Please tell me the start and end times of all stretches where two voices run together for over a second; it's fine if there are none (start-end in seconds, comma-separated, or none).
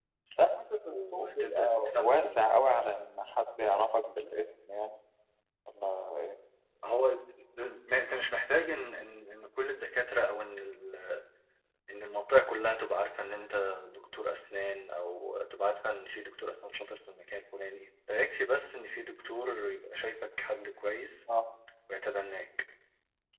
0.9-2.4